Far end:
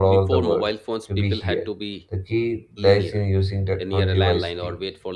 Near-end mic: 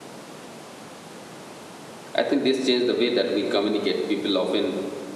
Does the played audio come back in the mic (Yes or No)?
No